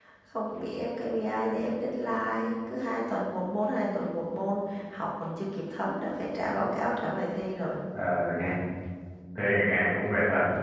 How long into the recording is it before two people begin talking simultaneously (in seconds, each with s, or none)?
none